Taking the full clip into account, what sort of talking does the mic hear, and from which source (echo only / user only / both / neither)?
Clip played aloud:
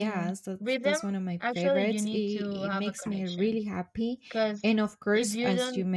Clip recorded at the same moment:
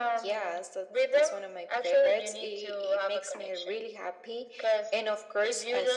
echo only